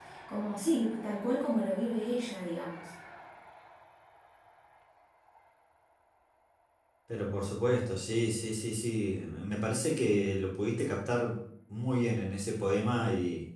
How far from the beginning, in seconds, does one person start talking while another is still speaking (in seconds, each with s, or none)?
none